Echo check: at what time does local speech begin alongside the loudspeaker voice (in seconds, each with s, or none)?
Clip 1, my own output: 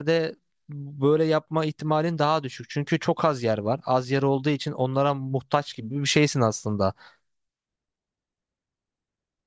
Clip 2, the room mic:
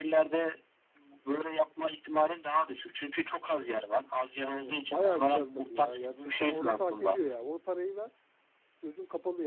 4.3 s